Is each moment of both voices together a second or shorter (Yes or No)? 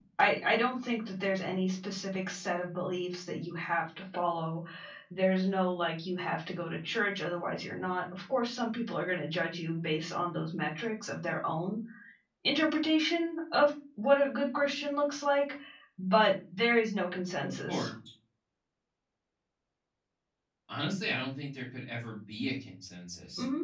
Yes